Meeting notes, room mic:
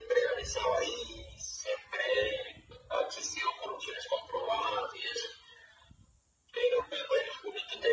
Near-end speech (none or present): none